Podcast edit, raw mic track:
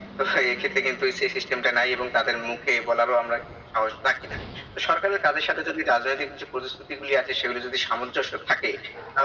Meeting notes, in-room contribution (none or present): none